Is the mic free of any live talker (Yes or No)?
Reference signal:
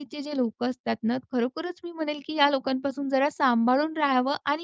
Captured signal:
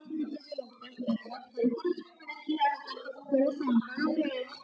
Yes